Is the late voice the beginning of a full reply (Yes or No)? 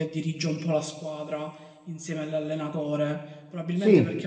No